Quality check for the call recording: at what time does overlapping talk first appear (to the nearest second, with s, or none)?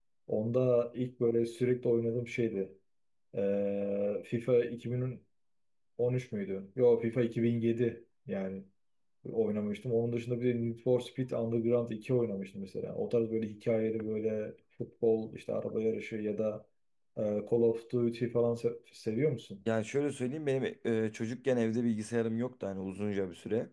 none